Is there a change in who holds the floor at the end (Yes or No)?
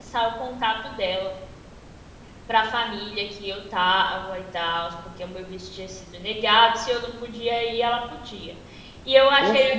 No